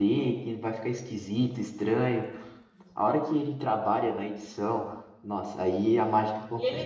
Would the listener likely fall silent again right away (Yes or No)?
No